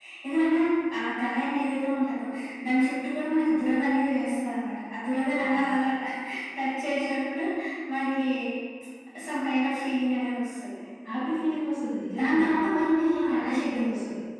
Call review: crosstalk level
present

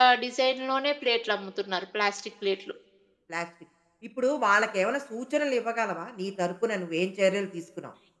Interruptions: none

